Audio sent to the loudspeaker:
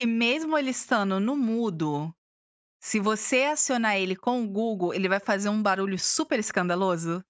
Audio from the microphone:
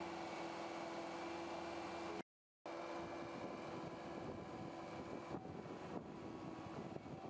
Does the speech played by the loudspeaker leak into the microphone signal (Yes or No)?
No